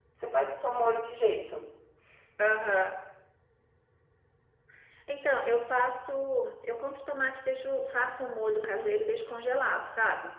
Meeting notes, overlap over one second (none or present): none